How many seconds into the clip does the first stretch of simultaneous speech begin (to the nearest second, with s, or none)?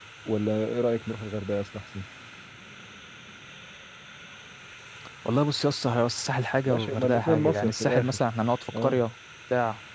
7 s